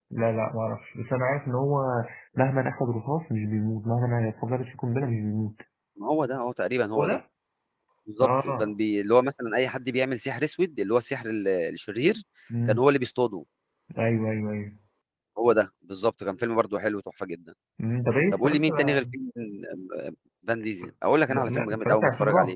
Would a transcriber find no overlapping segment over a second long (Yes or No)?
No